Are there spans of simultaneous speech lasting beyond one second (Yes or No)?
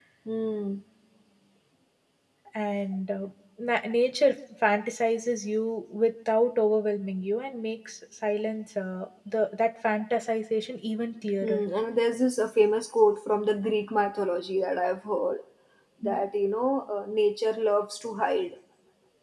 No